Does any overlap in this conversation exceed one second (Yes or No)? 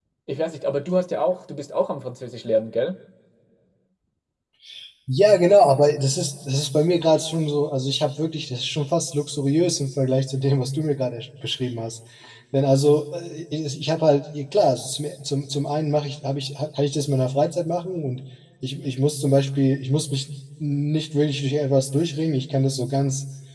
No